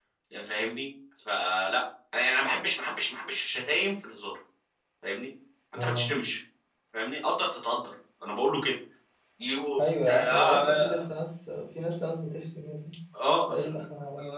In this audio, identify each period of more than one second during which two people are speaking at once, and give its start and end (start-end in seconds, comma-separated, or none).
9.8-11.0